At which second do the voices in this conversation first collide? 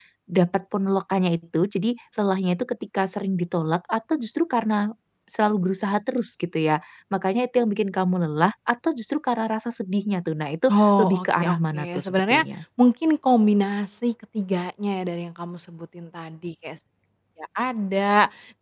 11 s

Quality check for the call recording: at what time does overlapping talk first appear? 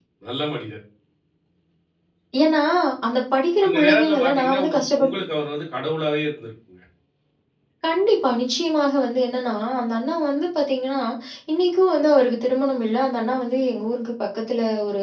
4 s

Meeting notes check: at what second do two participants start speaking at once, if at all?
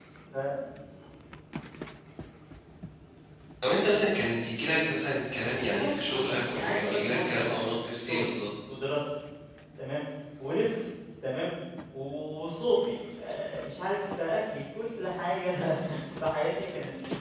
6 s

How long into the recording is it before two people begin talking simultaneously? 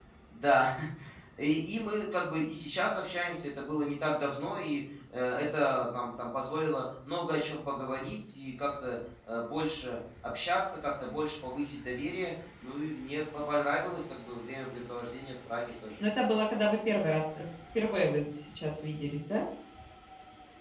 none

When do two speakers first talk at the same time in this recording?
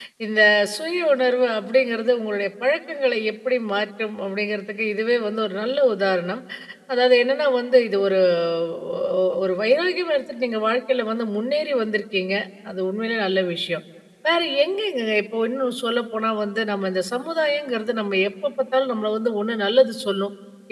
none

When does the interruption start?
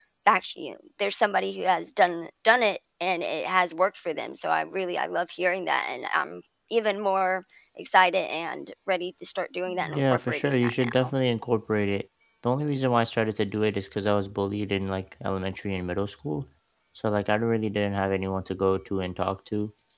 10 s

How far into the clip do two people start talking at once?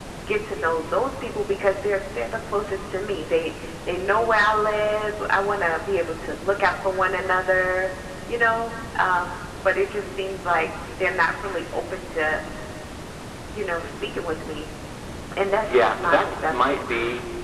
16 s

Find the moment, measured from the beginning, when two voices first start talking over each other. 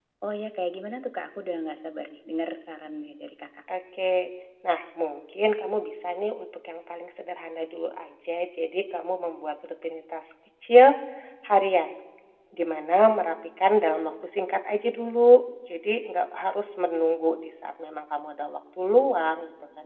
none

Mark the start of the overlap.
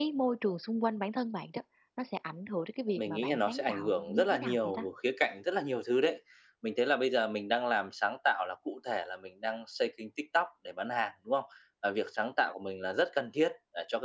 3 s

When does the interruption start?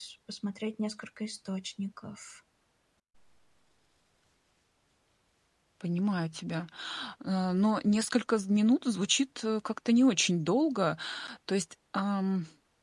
none

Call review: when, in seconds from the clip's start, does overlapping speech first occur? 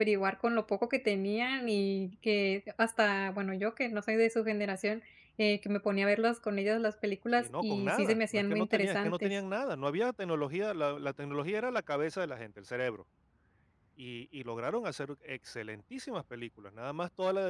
7 s

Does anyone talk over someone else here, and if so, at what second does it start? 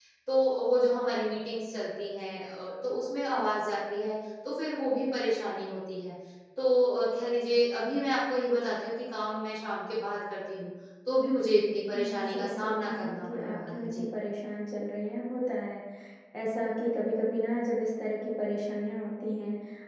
12 s

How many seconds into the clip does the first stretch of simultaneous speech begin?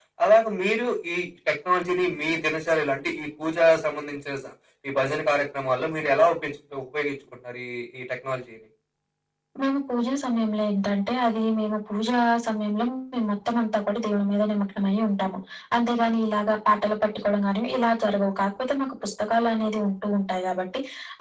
none

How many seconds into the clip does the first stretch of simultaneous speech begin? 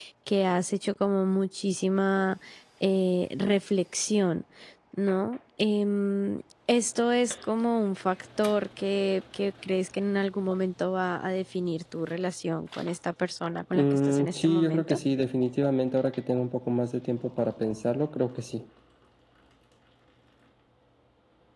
14 s

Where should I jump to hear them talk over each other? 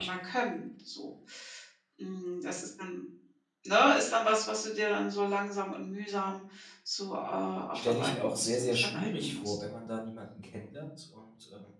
8 s

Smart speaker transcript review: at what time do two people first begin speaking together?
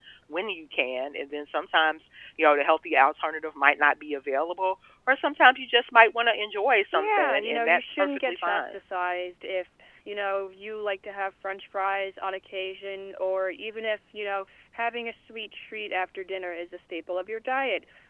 7 s

